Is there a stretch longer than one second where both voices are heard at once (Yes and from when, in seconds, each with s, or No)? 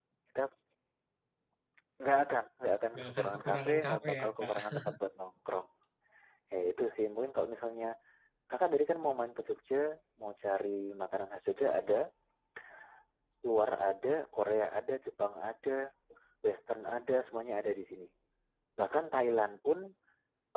Yes, from 3.0 s